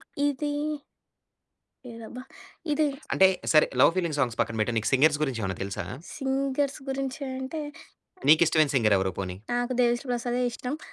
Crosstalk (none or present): none